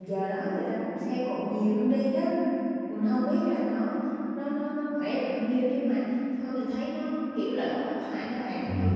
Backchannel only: No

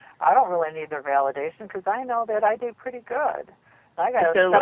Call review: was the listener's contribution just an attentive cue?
Yes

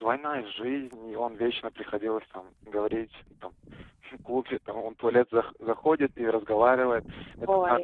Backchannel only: Yes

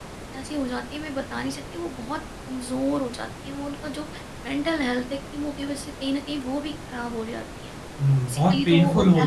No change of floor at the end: No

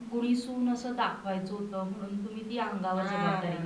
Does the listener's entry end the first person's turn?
Yes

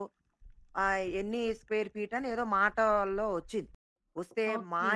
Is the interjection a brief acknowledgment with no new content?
Yes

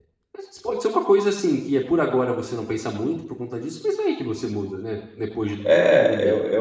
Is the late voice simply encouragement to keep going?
No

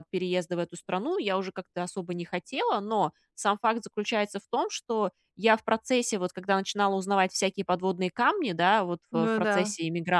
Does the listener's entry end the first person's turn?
No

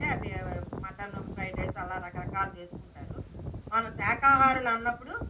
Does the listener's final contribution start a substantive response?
No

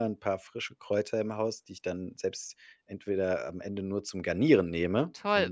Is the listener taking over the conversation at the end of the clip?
Yes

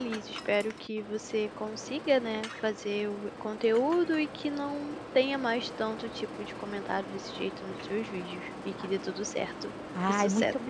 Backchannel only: No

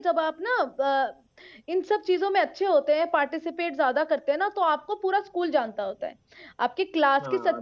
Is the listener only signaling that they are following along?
Yes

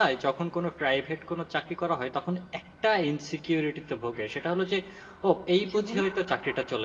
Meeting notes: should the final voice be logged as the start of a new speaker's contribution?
No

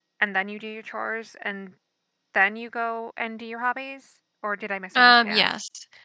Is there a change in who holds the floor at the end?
Yes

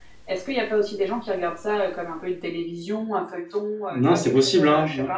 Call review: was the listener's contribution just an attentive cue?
No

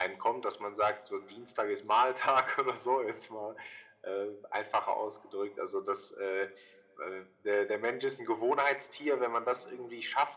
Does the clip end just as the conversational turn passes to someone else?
No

